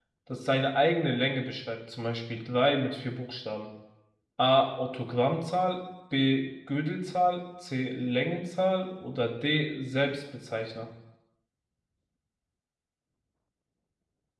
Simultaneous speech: No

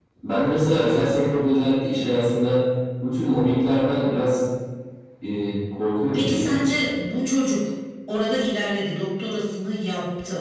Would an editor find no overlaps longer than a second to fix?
Yes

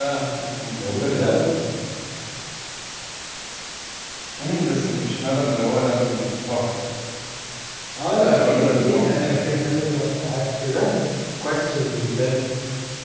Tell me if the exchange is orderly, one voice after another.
No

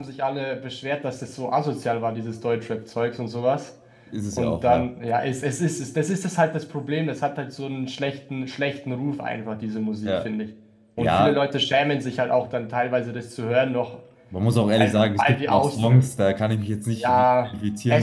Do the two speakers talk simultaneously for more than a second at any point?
Yes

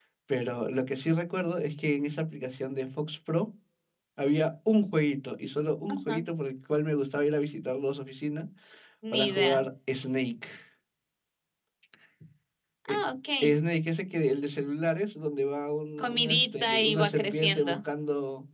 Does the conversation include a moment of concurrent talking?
Yes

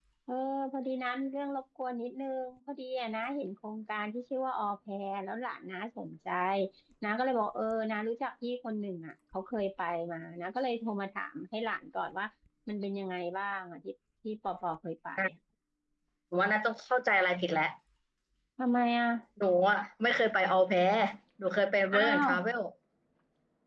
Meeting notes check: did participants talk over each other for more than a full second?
No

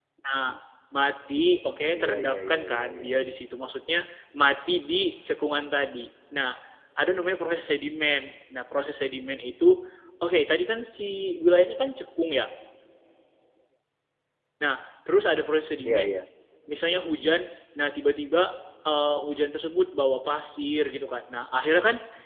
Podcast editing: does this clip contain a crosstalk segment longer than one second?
Yes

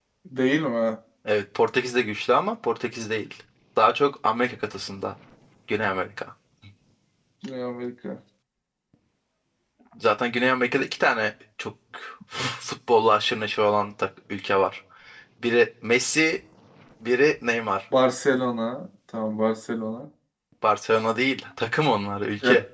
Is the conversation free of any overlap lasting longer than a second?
Yes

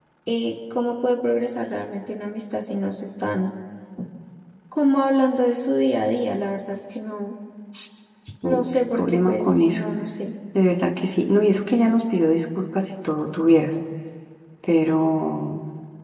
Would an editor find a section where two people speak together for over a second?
Yes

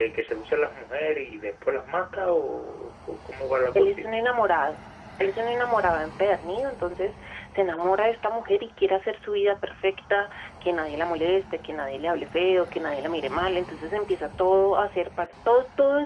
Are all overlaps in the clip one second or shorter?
Yes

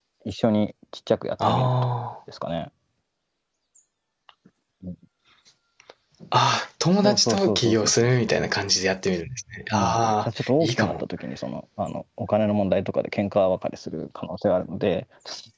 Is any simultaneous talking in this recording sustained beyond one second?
Yes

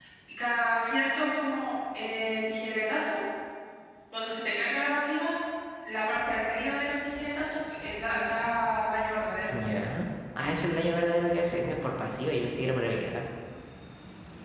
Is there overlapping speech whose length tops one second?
No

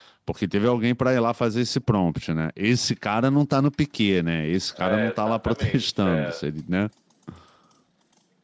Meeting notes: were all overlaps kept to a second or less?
No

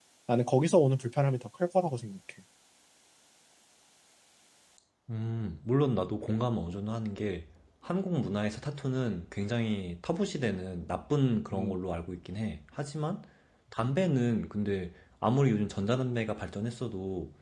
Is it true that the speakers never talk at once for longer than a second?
Yes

